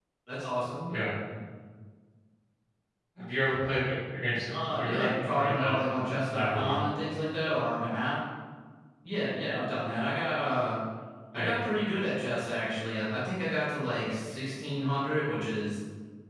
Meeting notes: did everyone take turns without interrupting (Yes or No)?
No